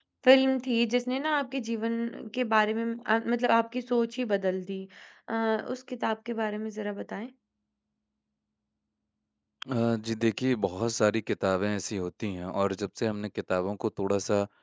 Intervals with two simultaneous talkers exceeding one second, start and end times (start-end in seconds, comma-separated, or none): none